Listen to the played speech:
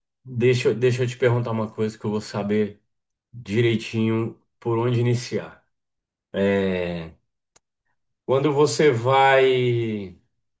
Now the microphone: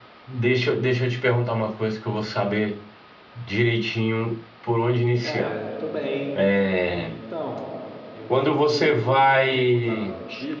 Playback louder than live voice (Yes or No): Yes